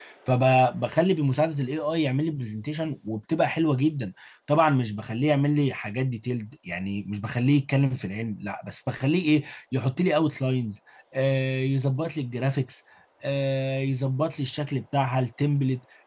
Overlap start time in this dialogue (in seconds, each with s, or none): none